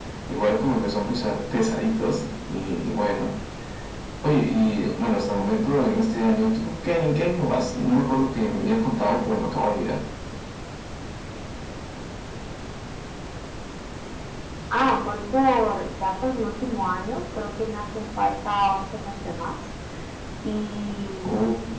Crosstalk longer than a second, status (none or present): none